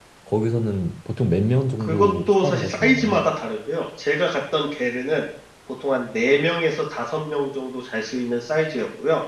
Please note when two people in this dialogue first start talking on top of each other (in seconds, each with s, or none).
1.9 s